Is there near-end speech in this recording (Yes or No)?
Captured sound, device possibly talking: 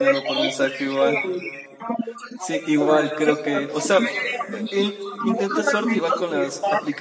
Yes